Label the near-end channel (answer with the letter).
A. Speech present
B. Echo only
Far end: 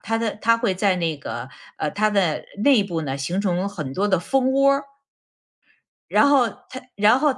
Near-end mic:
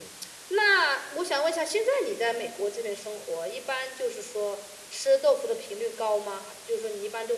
A